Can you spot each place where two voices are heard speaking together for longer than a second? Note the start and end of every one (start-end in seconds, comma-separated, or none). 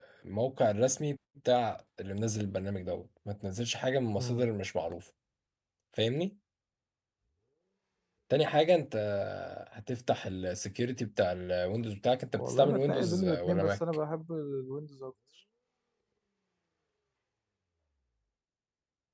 12.3-13.8